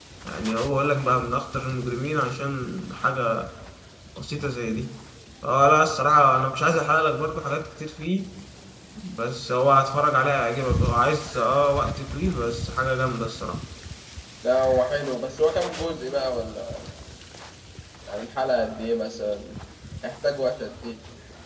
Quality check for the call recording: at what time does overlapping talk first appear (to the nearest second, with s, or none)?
none